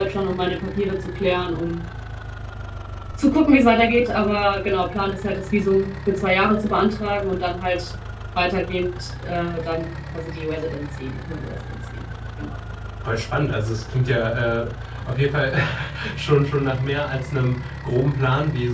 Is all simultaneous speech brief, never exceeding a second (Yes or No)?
Yes